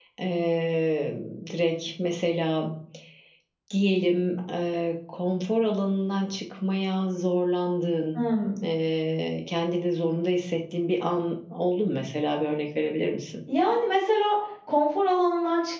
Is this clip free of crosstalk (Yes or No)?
Yes